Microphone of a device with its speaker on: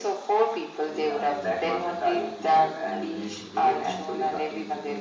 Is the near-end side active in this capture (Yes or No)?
Yes